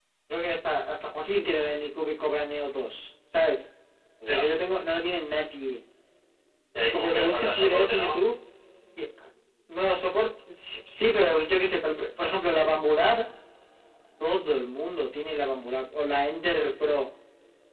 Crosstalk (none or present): present